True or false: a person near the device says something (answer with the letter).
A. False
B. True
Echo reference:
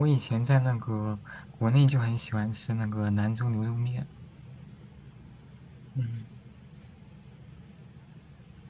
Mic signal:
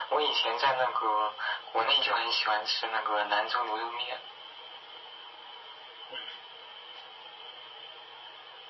A